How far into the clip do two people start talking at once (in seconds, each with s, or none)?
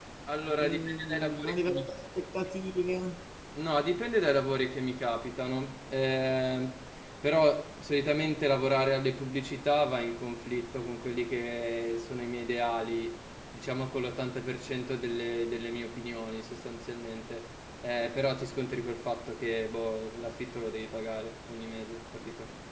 0.6 s